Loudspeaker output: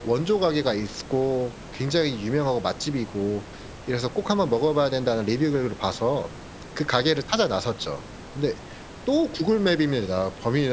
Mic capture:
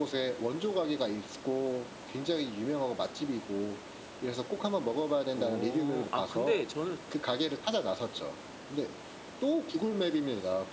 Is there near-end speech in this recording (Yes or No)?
Yes